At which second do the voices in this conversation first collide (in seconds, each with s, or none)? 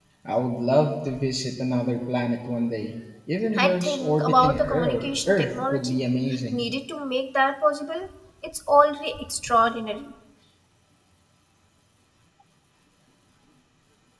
3.5 s